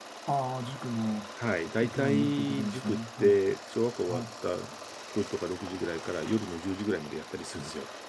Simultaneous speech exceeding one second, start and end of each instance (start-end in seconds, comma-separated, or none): 1.8-3.3